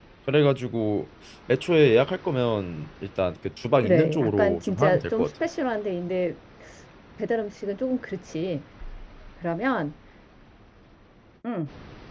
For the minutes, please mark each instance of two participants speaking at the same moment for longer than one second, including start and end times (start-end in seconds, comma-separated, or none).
3.8-5.3